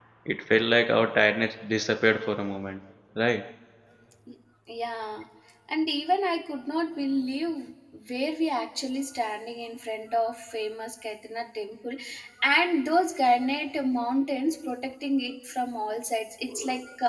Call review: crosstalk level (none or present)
none